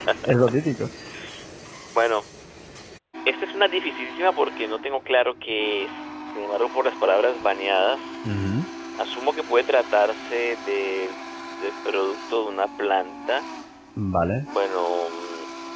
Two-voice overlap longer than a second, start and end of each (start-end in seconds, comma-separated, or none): none